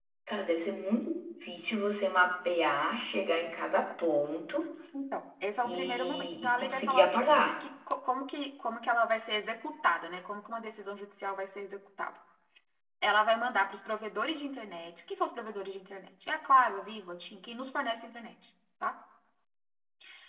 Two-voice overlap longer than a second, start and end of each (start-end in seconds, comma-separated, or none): 5.6-7.5